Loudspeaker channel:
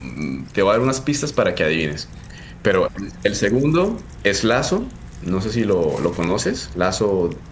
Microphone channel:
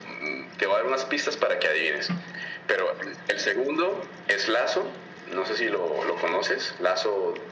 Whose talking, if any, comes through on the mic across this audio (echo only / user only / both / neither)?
echo only